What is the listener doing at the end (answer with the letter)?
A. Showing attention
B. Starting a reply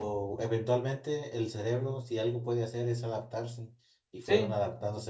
A